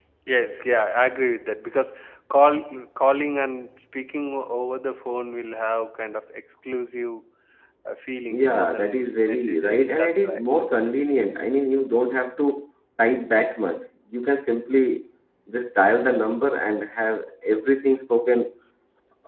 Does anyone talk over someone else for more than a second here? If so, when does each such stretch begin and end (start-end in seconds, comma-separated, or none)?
8.3-10.4